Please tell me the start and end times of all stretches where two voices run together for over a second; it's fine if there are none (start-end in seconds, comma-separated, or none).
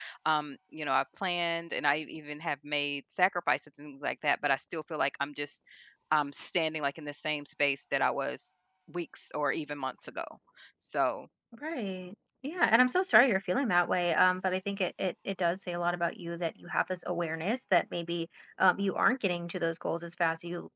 none